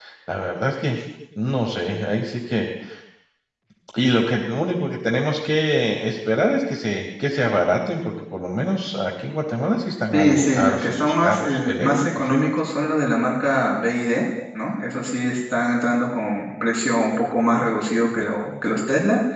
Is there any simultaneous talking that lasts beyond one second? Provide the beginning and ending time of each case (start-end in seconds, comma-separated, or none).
10.1-12.5